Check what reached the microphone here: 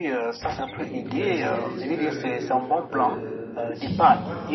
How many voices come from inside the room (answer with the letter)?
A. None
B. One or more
B